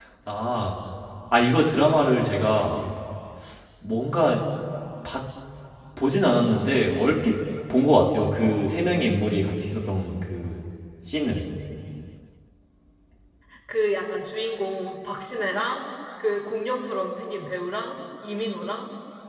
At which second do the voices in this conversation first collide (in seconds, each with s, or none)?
none